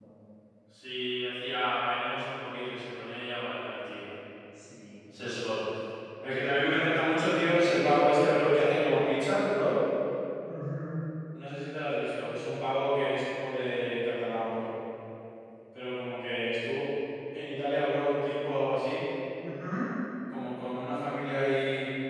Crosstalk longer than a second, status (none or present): none